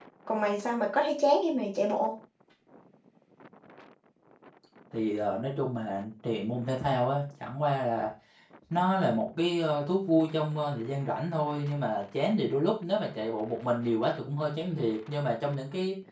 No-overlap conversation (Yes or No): Yes